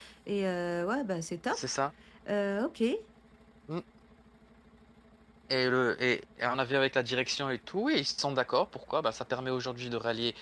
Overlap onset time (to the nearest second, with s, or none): none